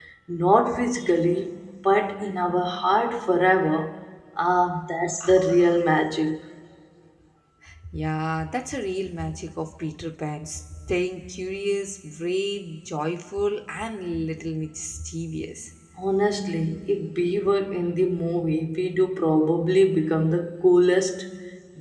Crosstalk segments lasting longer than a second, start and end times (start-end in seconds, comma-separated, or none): none